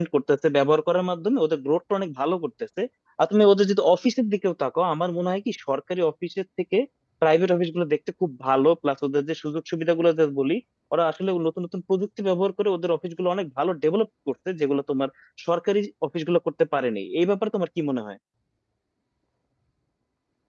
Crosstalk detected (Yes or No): No